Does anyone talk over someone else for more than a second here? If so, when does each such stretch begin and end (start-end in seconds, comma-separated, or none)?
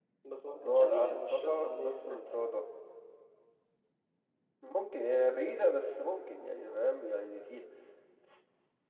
0.8-2.2